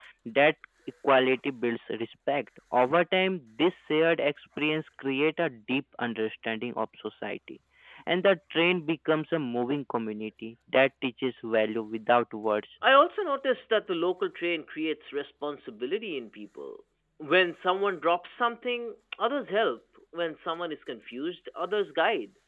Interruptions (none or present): none